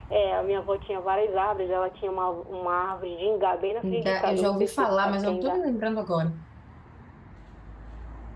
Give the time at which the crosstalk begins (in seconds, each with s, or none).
3.8 s